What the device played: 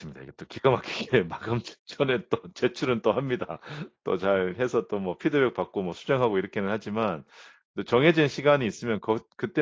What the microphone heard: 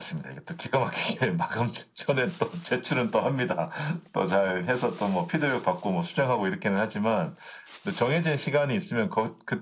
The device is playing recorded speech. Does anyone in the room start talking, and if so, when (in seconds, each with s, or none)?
none